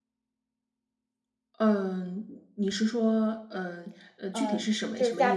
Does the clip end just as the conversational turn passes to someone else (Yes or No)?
Yes